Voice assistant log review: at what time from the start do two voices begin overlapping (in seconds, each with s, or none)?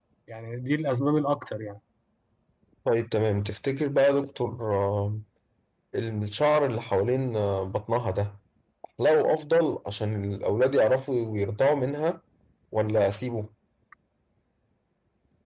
none